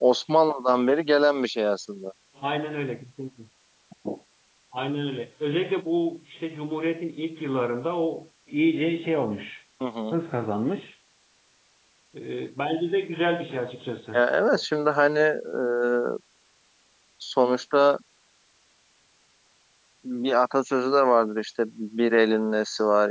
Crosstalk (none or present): none